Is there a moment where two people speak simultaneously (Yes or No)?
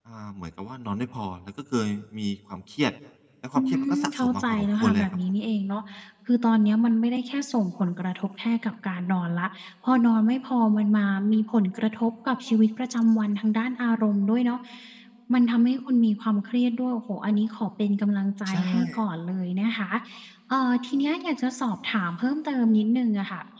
Yes